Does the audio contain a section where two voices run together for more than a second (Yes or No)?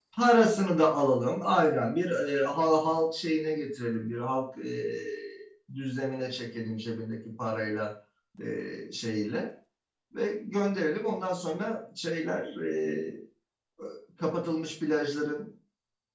No